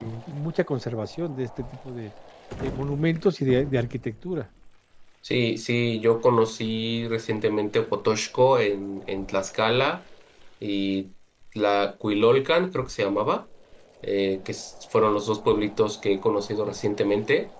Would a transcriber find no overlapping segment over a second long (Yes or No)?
Yes